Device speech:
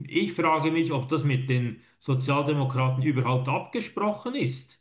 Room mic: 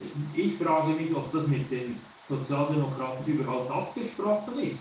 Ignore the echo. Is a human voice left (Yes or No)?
No